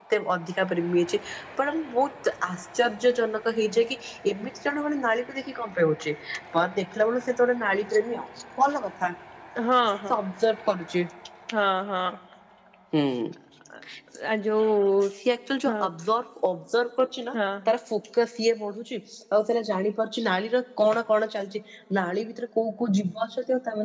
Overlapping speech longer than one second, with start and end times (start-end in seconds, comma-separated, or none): none